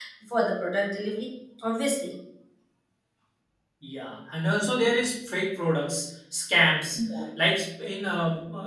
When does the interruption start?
none

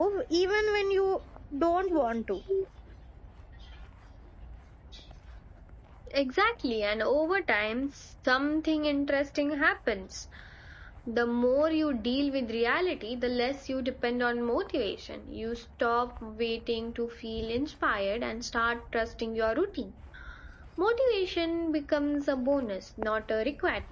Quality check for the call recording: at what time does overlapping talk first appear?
none

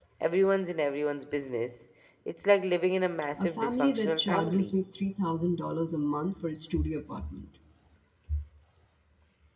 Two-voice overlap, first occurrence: 3 s

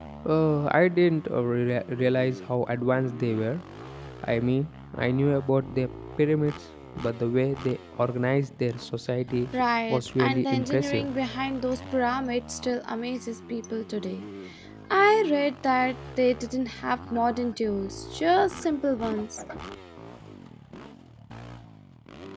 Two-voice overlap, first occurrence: 10 s

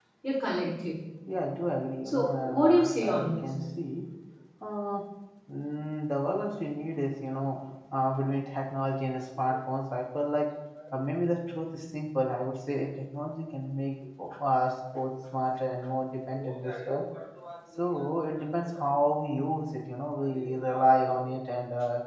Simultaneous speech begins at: 2 s

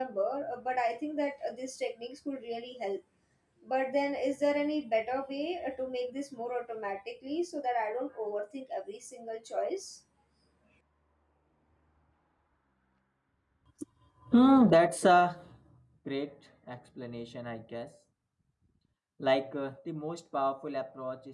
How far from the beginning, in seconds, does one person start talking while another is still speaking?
none

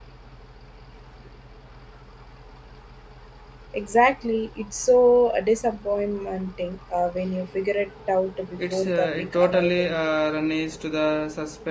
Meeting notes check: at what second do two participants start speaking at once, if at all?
9 s

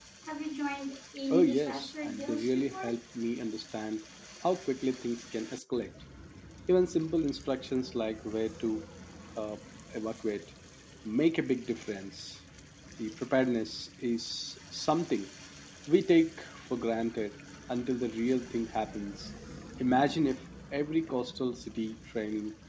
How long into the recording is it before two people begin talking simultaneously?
1 s

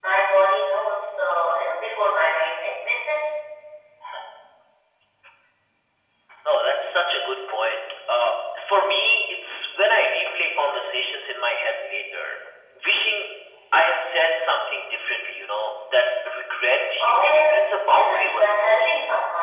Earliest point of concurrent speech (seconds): 17 s

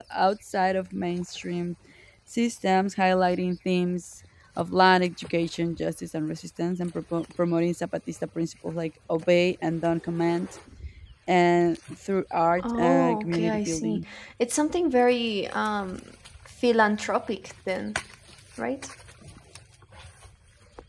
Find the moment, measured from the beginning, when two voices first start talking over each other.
13 s

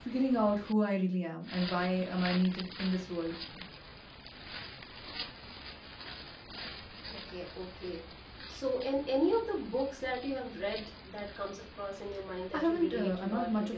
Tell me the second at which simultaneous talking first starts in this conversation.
13 s

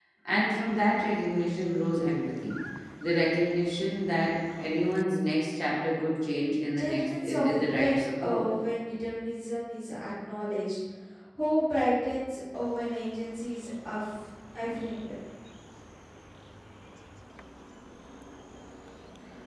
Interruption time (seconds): 7 s

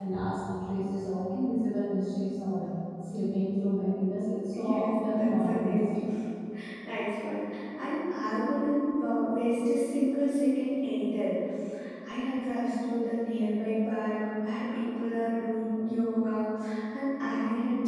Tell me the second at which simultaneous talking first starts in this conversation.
5 s

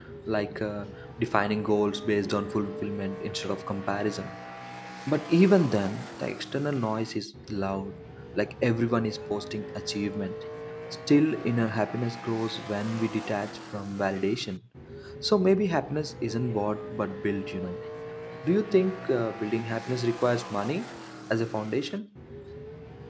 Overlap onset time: none

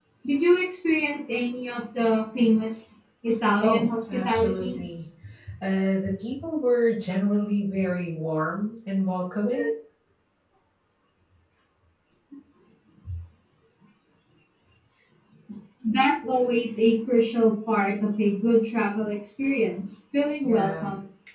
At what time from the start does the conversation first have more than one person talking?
4 s

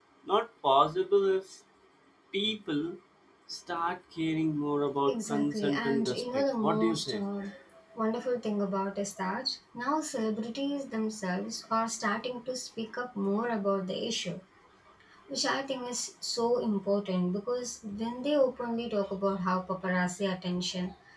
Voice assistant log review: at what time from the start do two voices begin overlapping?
5 s

